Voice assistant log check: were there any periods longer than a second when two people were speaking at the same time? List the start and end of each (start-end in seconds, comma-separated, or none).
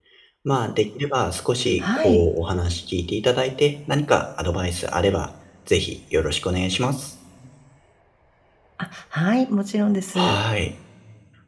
none